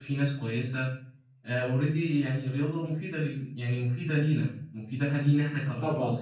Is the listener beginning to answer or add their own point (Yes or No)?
Yes